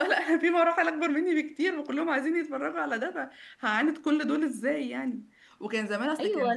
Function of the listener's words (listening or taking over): listening